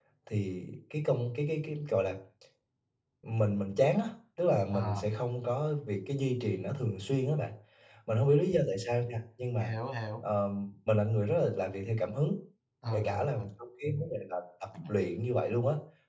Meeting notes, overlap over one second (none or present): none